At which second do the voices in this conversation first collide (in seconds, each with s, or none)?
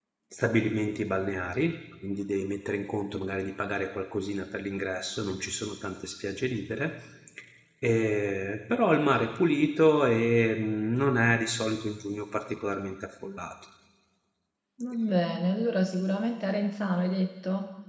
none